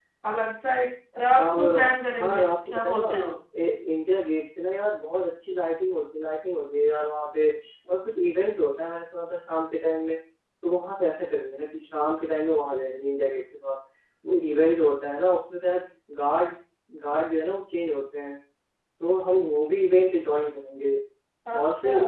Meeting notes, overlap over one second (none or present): present